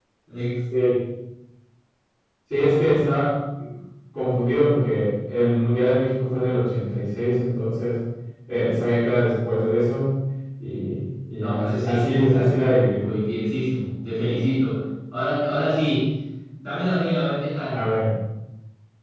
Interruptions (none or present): present